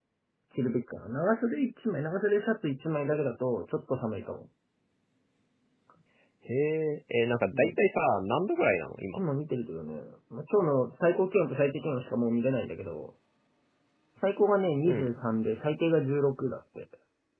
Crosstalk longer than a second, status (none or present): none